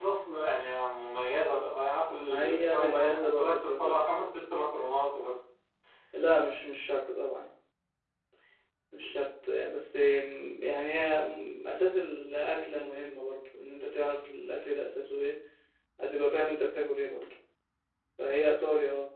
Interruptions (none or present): present